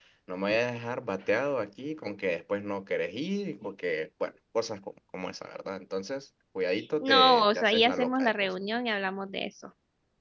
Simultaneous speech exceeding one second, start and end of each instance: 7.0-8.5

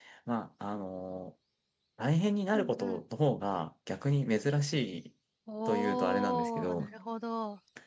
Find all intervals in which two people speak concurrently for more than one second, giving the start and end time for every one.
5.7-6.9

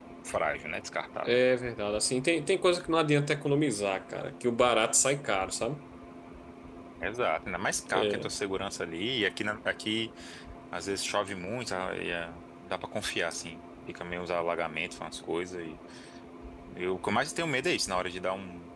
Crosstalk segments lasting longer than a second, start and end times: none

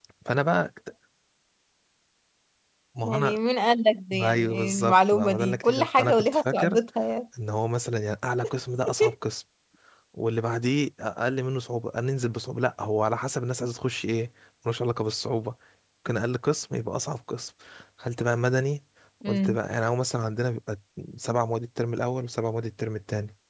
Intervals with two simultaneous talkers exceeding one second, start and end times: 4.2-6.8

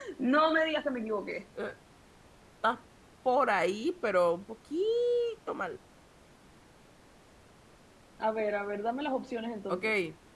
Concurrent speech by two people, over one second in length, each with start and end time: none

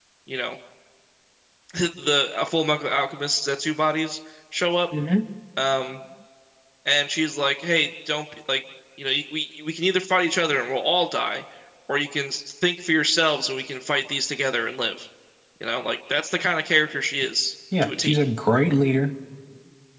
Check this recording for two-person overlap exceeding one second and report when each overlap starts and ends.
none

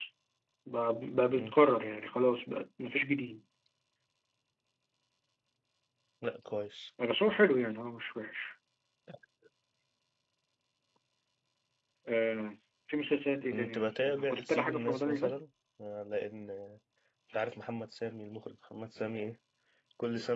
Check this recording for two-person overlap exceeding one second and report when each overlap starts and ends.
13.5-15.3

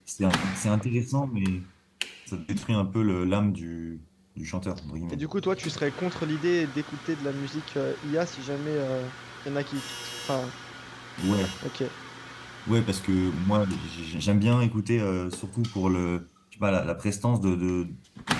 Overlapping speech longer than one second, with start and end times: none

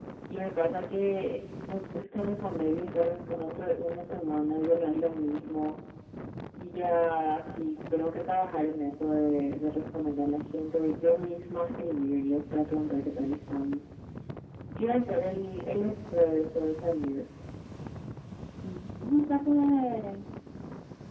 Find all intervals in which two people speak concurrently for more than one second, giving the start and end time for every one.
none

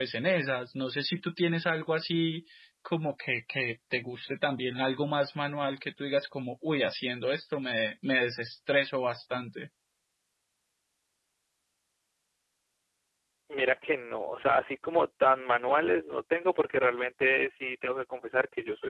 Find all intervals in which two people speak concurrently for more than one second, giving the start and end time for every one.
none

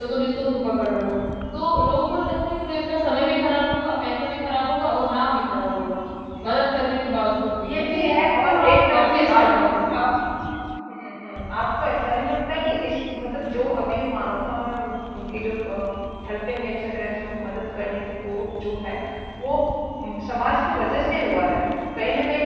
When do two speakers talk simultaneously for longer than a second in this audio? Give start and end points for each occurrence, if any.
7.6-9.5

